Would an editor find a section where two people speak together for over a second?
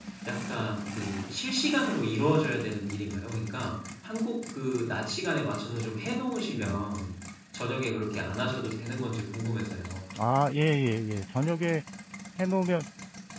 No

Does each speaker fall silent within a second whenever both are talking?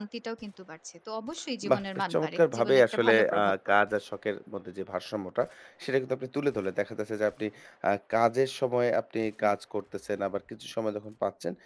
No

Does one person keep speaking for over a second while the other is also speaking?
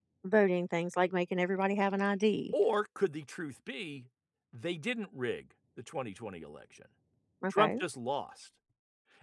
No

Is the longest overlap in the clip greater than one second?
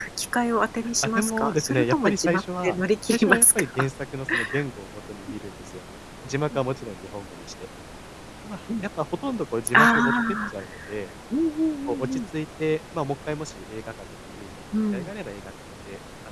Yes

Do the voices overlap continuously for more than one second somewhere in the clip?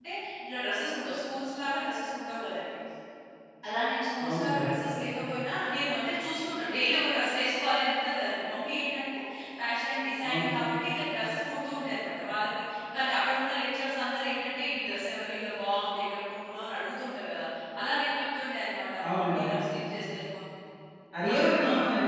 No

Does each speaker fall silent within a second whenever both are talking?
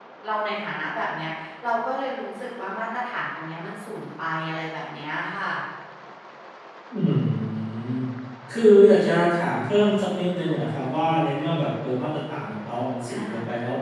Yes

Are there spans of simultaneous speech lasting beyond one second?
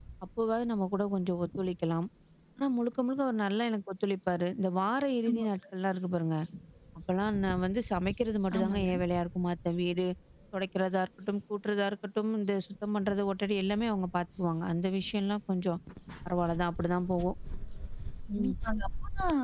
No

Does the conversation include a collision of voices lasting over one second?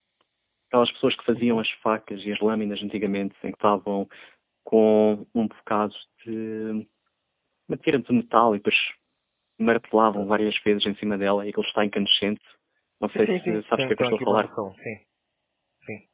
Yes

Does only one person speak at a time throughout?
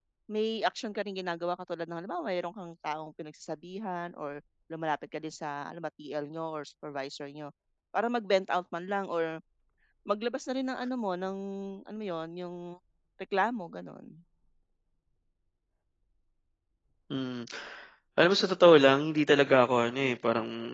Yes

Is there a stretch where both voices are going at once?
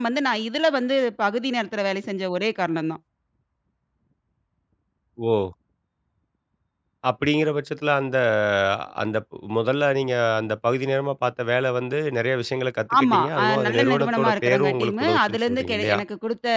Yes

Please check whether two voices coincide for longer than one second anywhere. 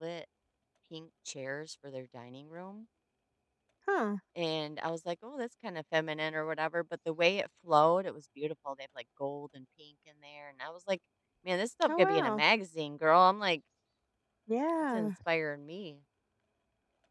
No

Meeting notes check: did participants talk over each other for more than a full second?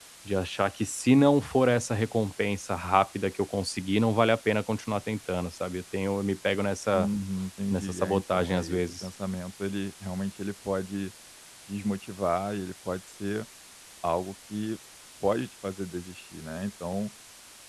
Yes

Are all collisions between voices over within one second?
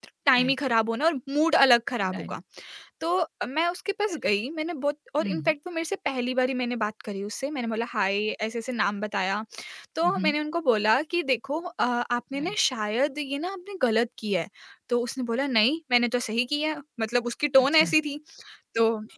Yes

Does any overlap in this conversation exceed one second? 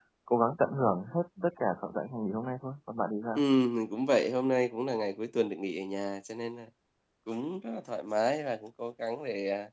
No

